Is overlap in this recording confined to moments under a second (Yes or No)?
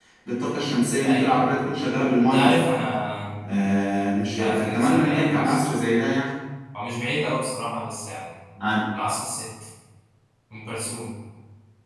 No